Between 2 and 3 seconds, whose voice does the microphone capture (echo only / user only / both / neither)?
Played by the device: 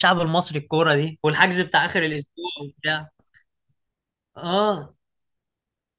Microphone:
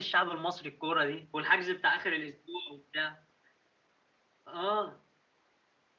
echo only